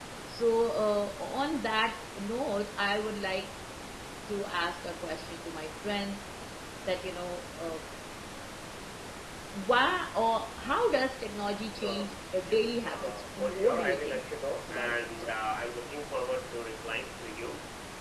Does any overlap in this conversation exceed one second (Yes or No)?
Yes